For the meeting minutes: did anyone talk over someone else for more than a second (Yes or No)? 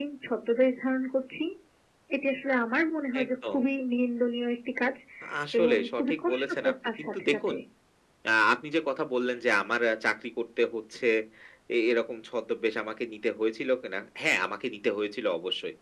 Yes